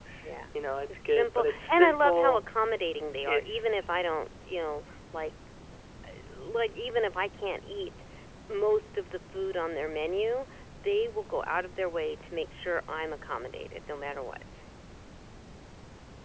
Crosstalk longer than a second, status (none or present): present